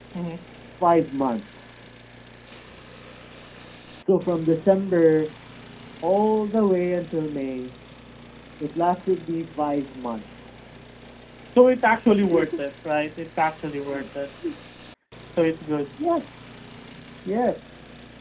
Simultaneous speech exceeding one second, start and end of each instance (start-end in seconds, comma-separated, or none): none